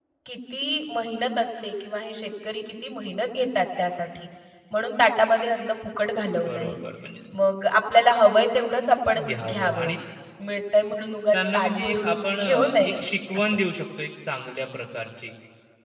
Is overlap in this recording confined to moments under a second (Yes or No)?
No